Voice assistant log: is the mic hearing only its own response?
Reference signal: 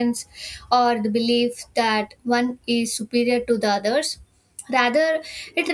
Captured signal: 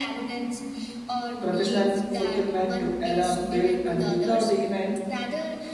No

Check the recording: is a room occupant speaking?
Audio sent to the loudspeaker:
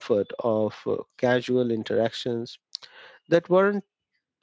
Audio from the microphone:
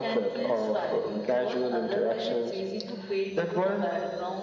Yes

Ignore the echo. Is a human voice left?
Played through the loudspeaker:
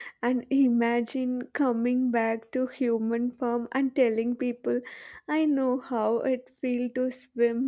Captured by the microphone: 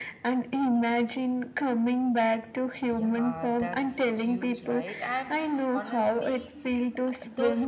Yes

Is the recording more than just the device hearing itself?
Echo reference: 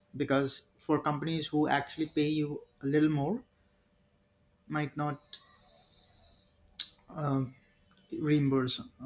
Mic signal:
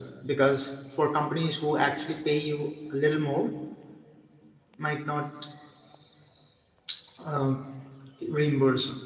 No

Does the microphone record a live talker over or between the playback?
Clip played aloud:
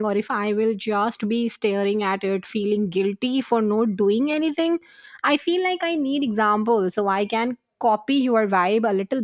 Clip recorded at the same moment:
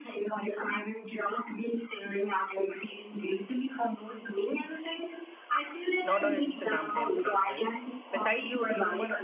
Yes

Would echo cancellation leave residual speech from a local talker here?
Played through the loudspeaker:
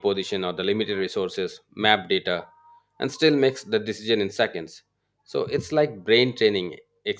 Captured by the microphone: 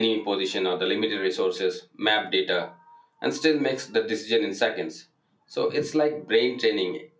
No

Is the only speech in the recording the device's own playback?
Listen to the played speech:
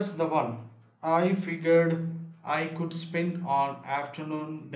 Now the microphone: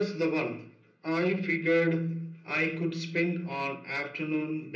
Yes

